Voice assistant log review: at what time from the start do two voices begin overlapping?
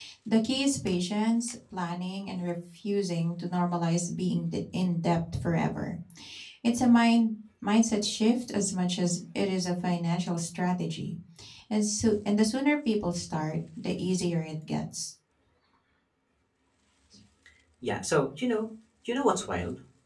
none

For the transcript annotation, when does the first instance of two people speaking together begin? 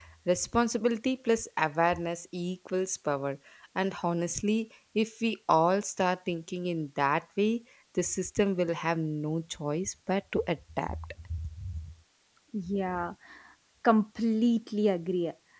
none

